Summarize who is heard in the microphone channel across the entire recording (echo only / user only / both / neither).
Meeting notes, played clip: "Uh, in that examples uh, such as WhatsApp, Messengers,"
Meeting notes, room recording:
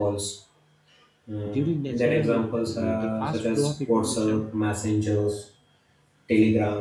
both